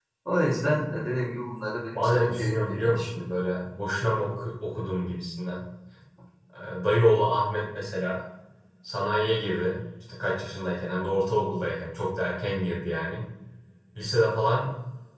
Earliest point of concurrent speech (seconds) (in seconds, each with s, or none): 1.9 s